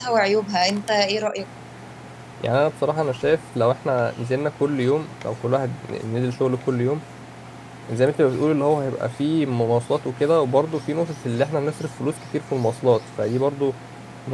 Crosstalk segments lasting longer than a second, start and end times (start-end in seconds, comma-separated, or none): none